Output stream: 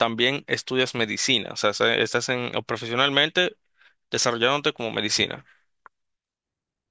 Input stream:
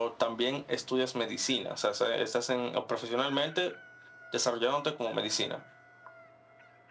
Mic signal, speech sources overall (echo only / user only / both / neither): echo only